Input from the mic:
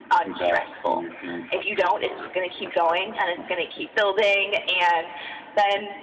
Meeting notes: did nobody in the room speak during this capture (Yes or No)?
No